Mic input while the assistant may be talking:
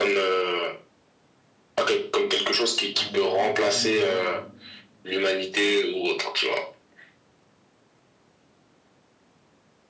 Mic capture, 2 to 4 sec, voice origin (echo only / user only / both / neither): both